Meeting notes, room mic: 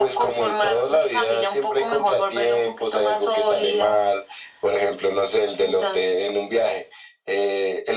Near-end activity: none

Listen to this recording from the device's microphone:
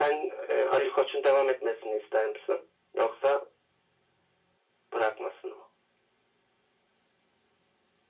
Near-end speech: none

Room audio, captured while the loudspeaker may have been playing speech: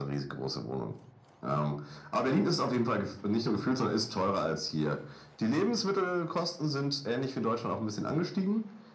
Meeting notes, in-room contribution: none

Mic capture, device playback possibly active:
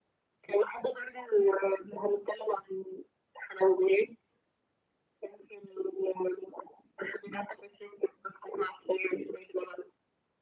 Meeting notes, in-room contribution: none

